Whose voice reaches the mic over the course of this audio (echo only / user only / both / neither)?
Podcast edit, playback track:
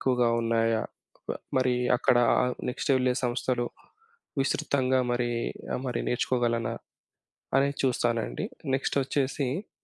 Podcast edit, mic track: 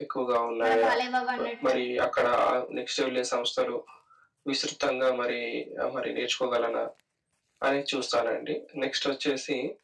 both